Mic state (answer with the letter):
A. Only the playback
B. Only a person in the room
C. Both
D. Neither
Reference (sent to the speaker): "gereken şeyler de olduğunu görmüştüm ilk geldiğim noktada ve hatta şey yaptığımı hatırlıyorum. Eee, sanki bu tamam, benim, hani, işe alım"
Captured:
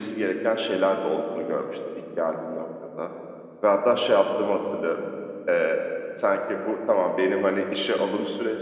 A